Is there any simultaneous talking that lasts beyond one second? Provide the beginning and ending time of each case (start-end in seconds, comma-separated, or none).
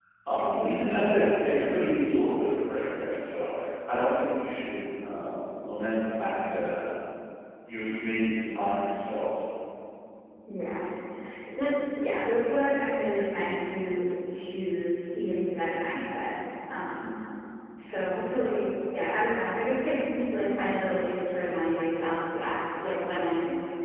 none